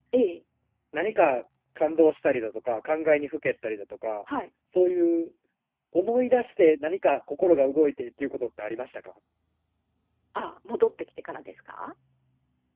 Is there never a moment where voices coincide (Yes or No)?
Yes